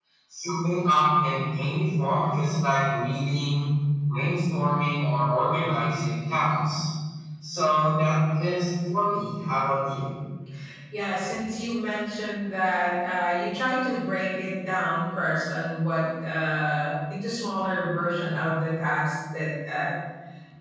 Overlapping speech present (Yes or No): No